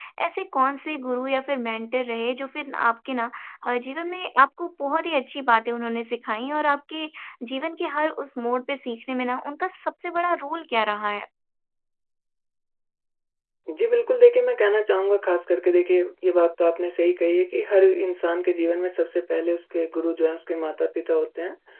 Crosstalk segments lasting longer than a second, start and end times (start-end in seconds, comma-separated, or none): none